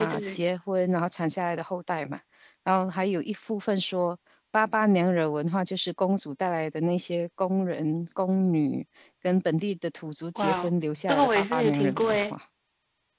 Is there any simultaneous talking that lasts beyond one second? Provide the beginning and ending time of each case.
10.3-12.3

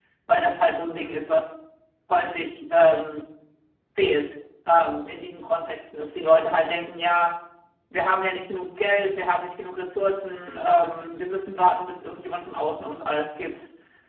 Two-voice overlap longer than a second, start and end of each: none

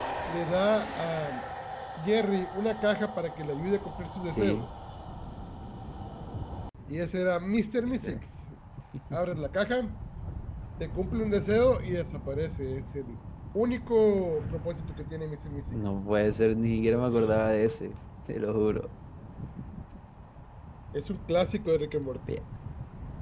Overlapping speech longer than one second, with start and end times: none

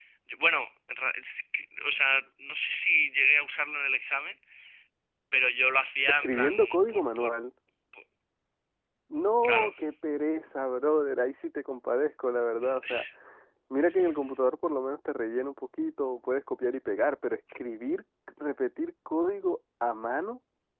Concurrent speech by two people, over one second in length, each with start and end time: 6.1-7.3

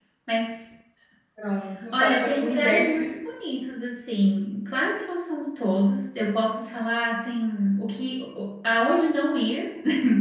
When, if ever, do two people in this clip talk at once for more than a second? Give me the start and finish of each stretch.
1.9-3.1

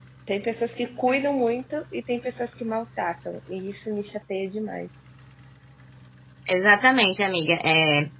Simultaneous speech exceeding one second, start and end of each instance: none

